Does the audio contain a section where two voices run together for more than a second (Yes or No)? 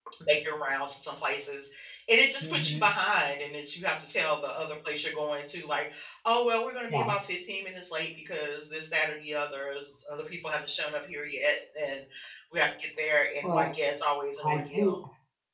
No